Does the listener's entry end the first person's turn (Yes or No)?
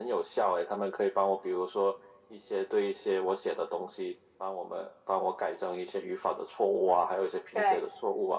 No